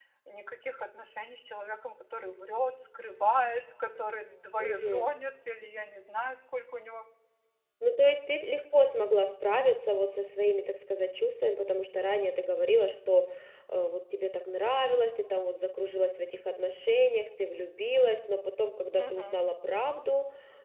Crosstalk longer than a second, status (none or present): none